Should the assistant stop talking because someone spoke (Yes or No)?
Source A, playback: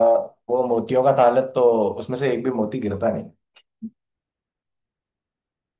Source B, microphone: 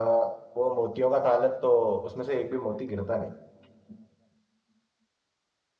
No